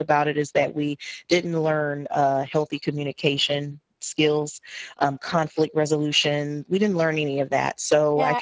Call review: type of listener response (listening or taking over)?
taking over